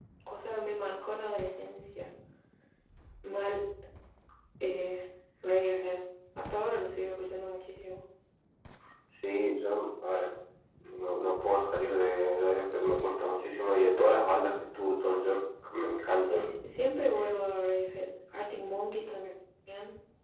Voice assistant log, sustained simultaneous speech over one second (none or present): none